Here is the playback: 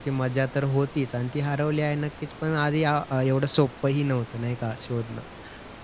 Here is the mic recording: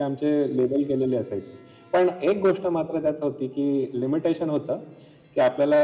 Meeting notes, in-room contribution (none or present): present